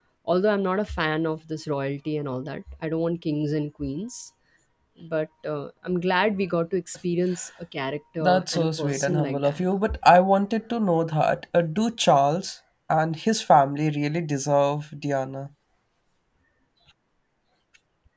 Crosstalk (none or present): present